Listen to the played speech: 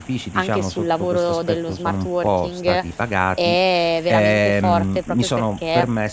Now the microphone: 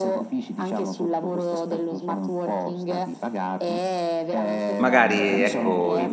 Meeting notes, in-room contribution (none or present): present